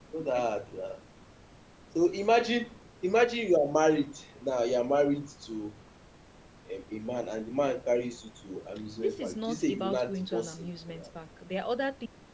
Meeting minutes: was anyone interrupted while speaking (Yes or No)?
Yes